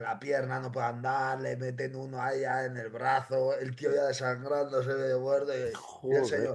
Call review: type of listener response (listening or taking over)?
listening